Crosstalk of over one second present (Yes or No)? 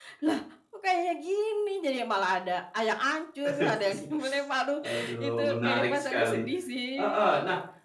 Yes